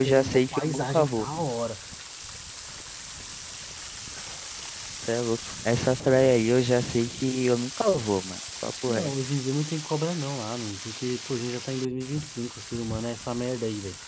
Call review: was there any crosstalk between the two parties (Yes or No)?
Yes